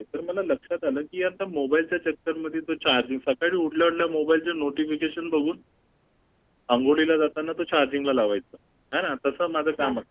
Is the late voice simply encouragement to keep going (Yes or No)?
Yes